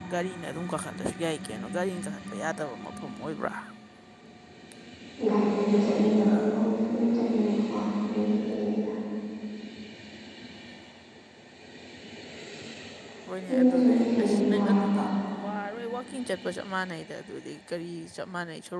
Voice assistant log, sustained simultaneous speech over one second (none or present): present